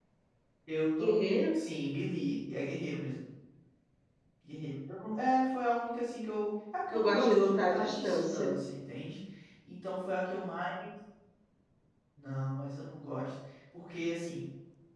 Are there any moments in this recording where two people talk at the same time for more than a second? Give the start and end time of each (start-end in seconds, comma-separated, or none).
6.9-8.5